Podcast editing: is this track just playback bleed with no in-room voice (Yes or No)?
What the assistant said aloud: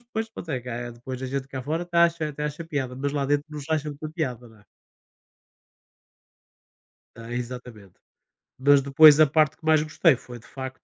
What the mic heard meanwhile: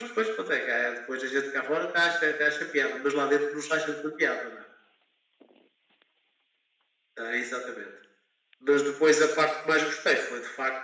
Yes